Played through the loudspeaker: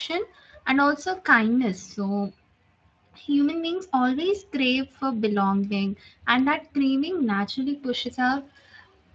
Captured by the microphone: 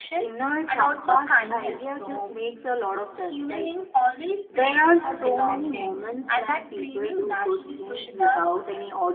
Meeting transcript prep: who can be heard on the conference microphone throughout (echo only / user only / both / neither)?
both